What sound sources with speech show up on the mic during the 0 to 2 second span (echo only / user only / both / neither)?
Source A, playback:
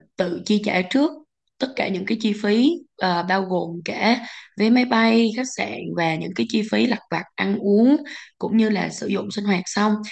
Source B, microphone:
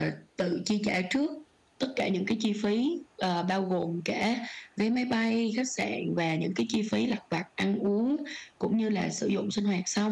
echo only